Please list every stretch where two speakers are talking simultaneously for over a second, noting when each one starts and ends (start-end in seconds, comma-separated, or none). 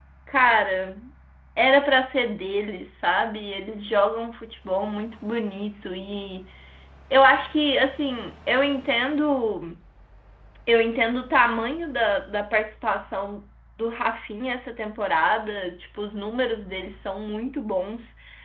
none